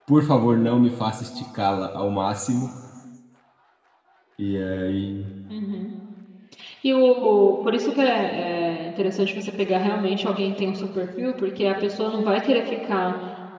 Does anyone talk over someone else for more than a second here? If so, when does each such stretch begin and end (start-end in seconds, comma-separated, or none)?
none